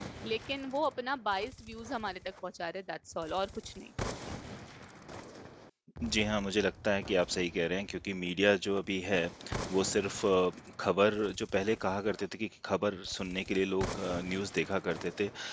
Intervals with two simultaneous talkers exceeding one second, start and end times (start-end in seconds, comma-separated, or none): none